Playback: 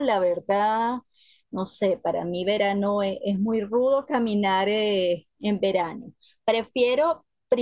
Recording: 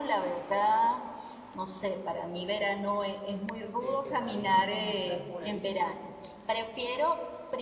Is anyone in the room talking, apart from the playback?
Yes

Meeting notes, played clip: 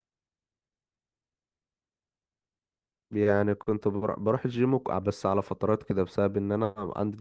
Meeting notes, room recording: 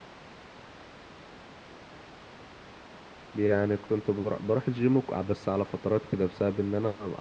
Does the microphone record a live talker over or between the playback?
No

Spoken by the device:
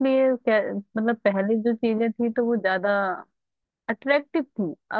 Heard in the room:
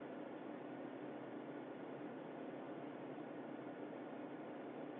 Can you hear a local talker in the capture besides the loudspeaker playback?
No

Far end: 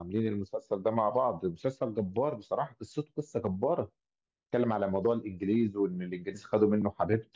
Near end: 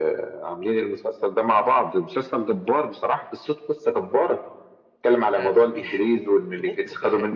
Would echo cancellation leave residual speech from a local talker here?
Yes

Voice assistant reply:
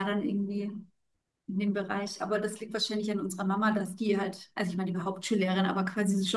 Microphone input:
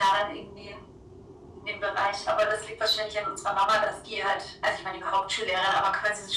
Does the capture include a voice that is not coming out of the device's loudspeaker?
No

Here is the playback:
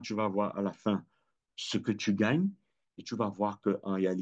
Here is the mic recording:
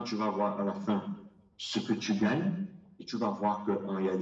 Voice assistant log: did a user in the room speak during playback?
No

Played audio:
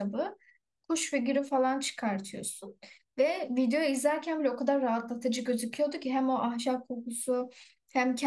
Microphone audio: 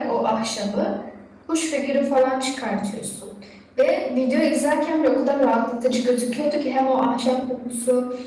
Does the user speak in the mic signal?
No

